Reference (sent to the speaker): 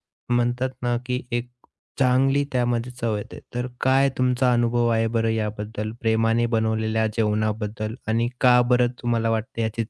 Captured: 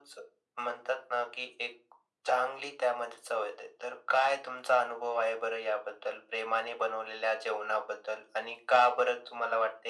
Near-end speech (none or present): none